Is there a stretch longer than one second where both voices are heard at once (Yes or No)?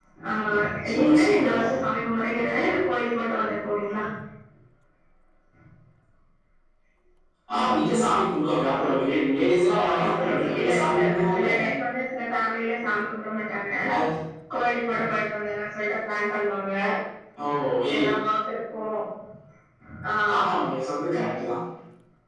Yes